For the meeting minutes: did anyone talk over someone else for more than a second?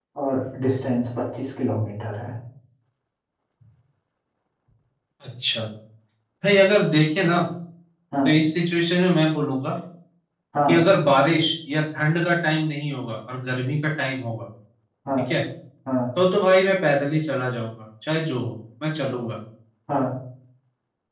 No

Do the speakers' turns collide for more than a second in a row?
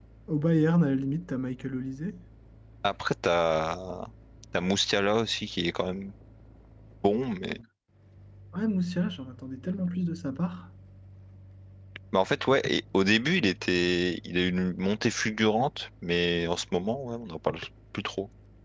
No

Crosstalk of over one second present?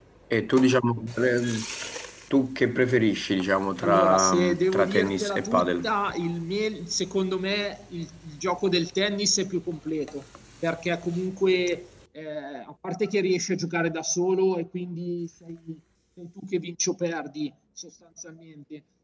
Yes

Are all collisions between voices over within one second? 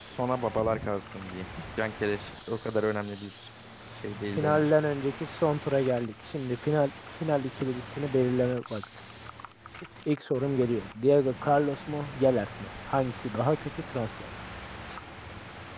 Yes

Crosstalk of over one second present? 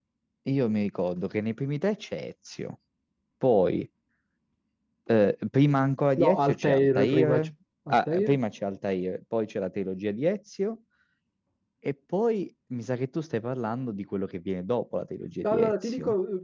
Yes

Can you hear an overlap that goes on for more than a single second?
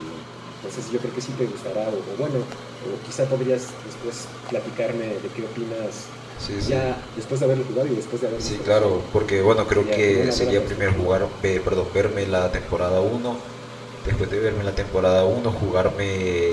Yes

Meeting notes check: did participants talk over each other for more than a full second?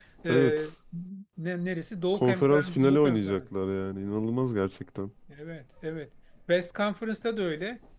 Yes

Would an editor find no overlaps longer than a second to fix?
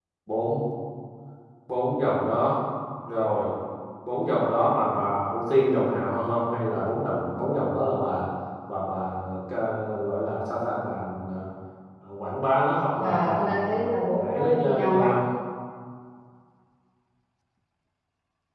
No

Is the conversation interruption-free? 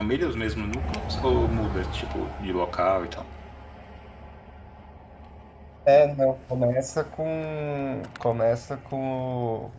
Yes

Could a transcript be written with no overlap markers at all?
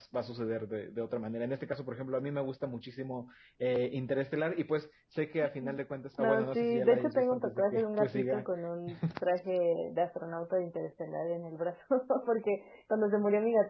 No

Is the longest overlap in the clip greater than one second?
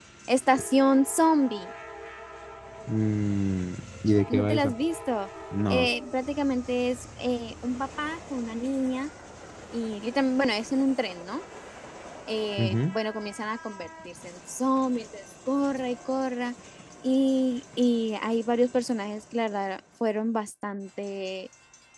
No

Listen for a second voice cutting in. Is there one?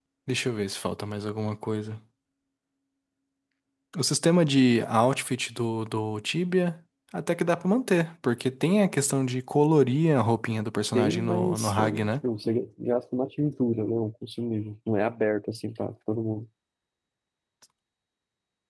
Yes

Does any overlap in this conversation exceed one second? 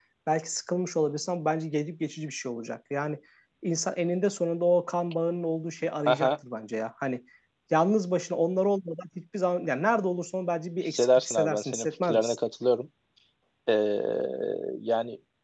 Yes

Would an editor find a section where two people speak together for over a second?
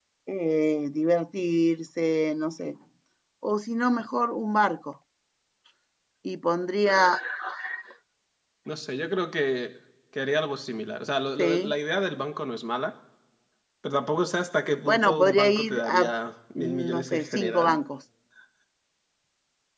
Yes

